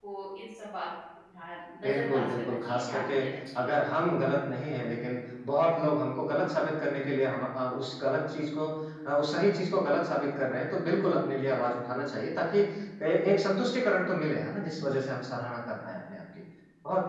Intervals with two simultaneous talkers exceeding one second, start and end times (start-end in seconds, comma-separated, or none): 1.8-3.1